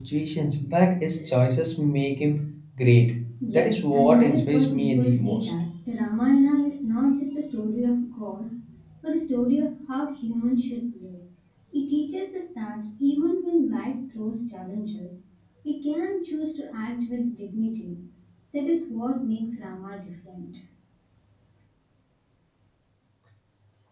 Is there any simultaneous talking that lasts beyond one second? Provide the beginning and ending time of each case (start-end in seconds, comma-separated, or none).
3.5-5.5